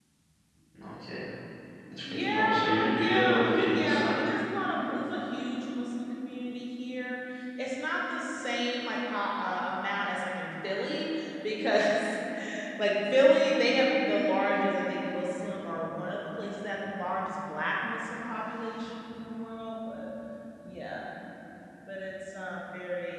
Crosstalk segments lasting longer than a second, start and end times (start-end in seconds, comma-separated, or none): 2.1-4.1